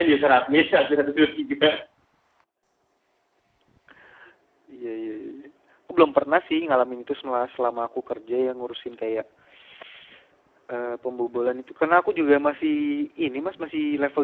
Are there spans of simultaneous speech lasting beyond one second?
No

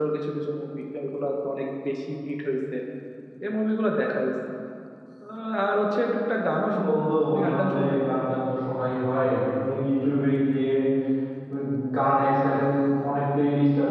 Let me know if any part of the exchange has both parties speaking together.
Yes, from 6.6 s

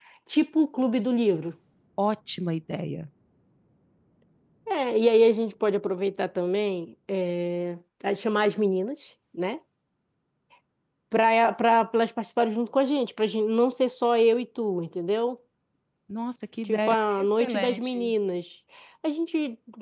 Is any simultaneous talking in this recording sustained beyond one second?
Yes, from 16.7 s

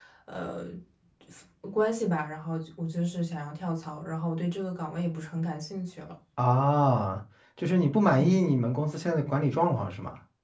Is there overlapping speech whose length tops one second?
No

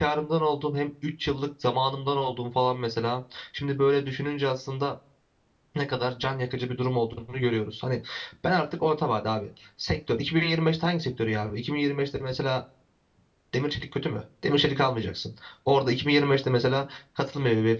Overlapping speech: No

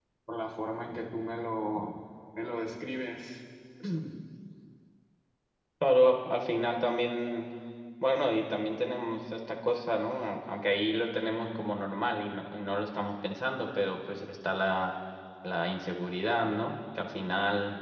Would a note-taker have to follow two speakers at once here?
No

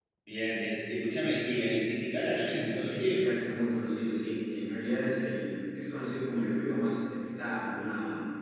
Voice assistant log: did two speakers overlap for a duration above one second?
No

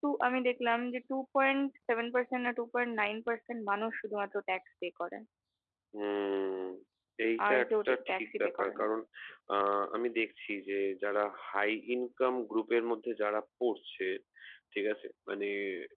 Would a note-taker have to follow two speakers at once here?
Yes, from 7.5 s

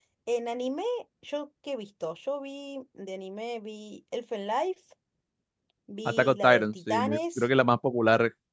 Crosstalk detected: Yes, from 6.0 s

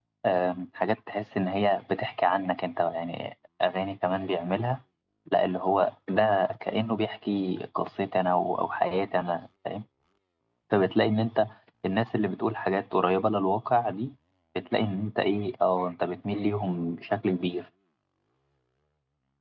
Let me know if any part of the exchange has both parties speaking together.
No

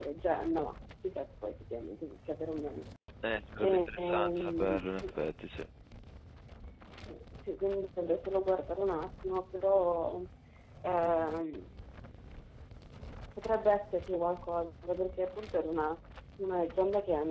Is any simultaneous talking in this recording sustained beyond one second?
Yes, from 3.6 s

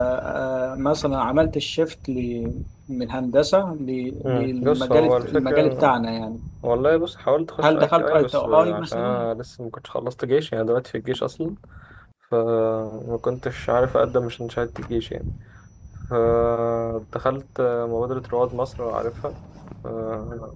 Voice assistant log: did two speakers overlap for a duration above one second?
Yes, from 4.2 s

